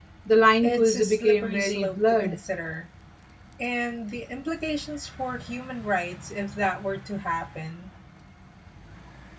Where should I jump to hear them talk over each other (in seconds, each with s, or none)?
0.6 s